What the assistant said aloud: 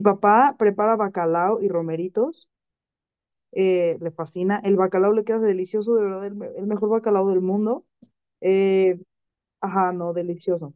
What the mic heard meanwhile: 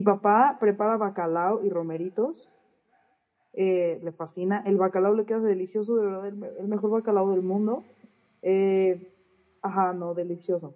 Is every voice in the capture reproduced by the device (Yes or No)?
Yes